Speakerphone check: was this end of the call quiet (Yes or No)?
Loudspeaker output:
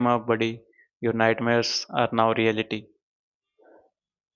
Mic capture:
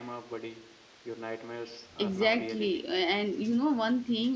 No